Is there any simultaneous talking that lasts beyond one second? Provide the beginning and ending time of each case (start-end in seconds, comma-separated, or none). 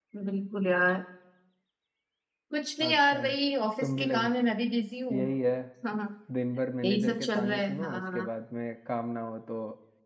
6.8-8.3